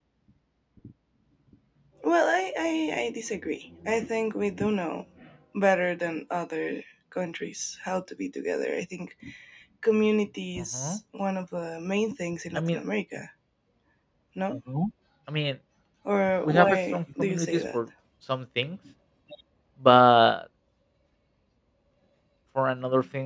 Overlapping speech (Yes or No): Yes